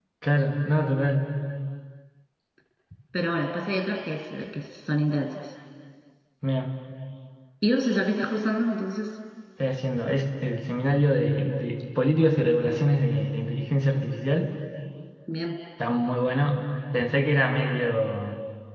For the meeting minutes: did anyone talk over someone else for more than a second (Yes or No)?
No